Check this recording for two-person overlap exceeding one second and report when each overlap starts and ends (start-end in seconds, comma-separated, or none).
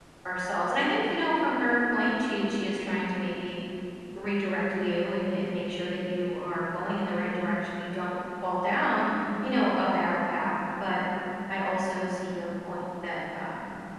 none